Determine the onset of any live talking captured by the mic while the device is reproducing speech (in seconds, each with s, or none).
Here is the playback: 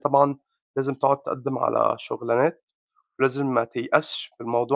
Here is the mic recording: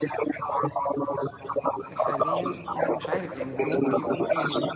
1.8 s